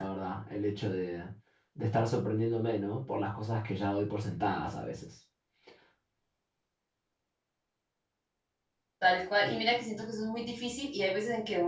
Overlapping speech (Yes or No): No